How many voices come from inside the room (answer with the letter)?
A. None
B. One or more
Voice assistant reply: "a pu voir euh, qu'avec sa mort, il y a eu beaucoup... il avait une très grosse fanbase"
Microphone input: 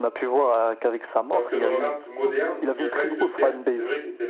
B